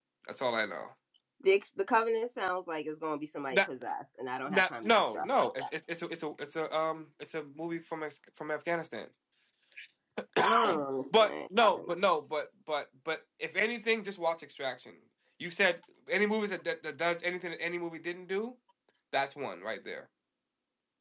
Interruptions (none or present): present